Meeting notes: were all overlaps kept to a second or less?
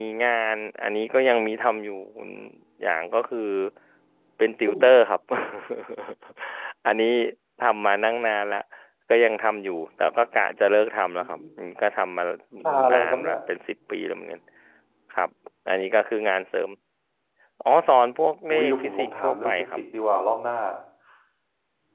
No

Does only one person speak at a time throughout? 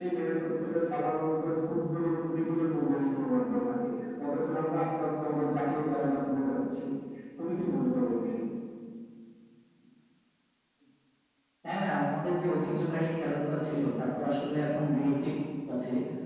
Yes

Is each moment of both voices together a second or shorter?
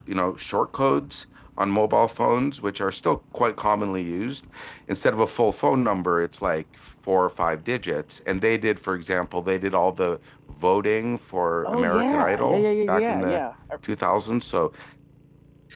No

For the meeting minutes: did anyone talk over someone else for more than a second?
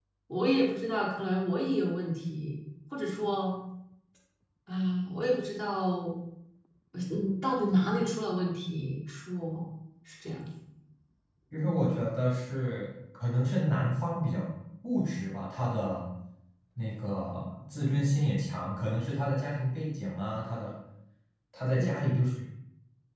No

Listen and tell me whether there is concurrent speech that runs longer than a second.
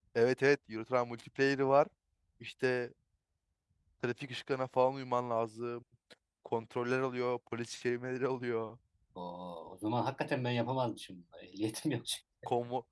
No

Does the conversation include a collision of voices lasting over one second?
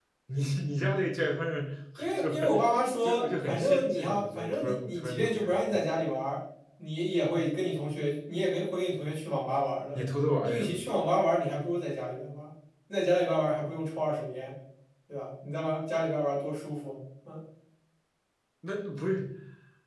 Yes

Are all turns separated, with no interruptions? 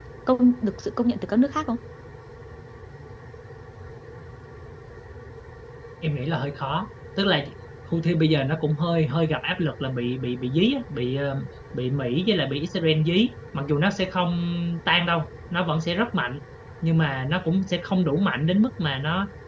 Yes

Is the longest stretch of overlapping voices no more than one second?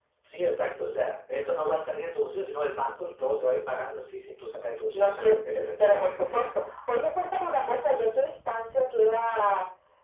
No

